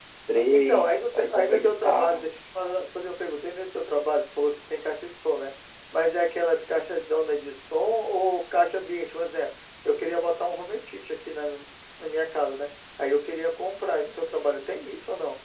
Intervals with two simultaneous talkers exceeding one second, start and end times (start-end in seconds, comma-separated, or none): 0.5-2.3